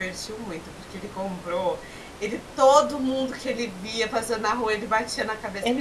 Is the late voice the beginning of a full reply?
No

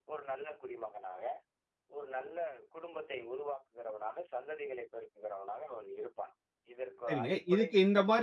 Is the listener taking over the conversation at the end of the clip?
Yes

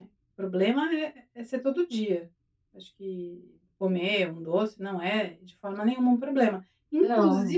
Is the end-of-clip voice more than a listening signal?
No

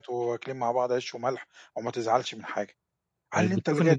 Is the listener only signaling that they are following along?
No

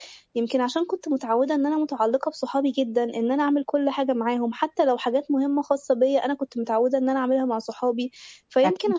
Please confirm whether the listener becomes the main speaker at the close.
No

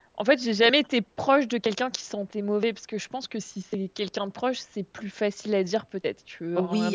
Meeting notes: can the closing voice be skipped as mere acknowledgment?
No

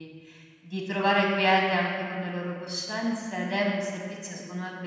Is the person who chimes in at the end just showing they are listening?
Yes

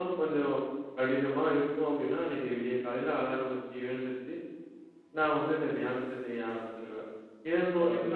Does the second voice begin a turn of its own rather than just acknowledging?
No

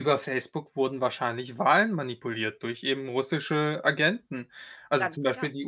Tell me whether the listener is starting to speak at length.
No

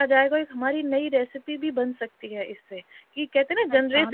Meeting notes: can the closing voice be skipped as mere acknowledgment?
No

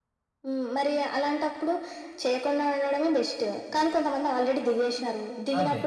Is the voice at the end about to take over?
No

